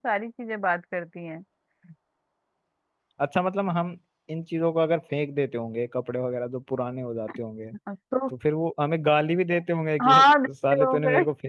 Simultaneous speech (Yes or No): Yes